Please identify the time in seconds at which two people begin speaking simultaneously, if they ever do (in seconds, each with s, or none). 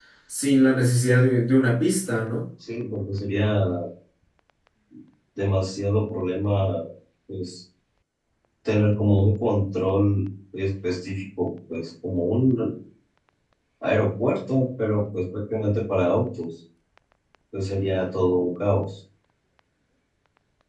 none